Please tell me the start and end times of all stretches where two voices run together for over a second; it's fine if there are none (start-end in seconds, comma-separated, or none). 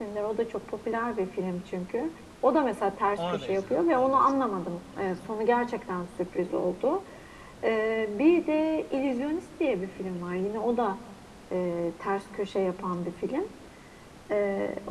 3.2-4.5